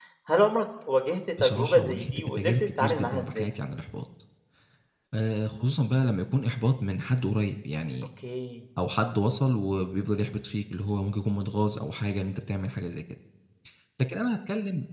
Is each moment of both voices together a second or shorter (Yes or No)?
No